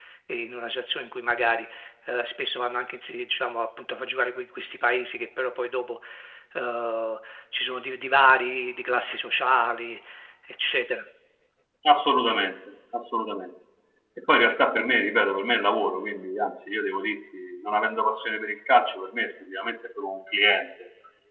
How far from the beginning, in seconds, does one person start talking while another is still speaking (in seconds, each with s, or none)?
none